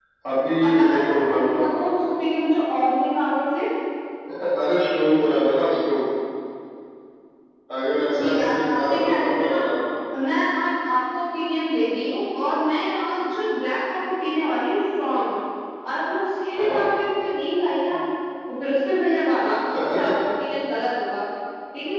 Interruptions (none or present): present